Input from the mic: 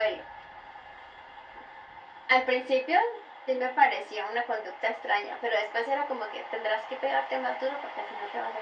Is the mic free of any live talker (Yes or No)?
Yes